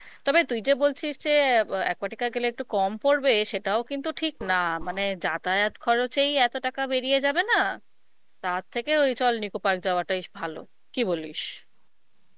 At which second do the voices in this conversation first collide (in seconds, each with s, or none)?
none